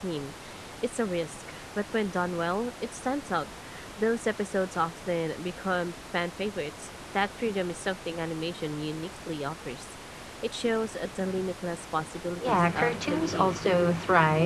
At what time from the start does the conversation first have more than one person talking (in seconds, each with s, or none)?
12.4 s